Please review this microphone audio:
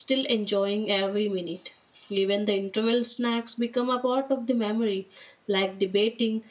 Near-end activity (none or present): present